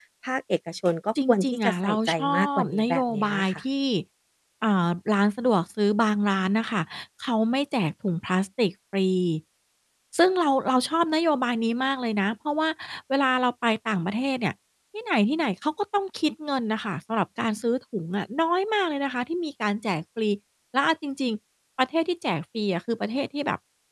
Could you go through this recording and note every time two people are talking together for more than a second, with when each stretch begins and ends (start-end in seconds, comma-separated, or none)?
1.3-3.6